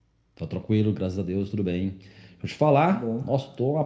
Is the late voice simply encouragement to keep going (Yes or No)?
Yes